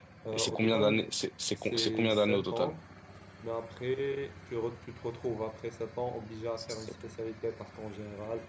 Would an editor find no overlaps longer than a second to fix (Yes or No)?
No